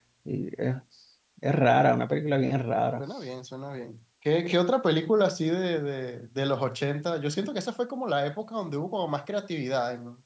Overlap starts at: none

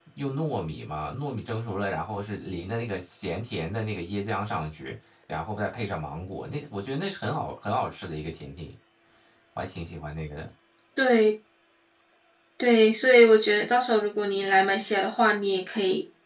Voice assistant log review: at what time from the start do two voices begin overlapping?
none

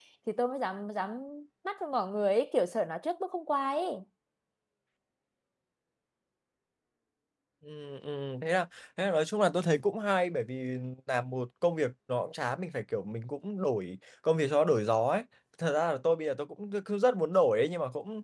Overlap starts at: none

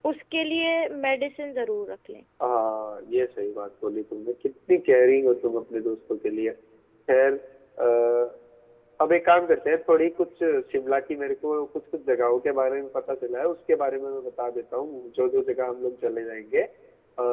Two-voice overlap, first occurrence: none

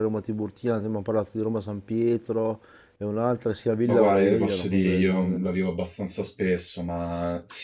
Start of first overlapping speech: 4 s

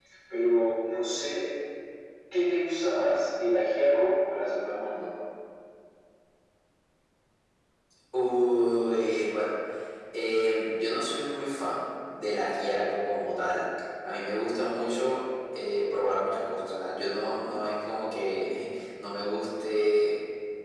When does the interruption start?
none

